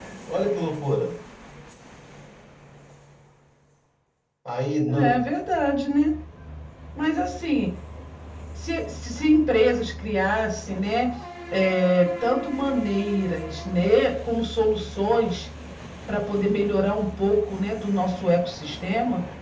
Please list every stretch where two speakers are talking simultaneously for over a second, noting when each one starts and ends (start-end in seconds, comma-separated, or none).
none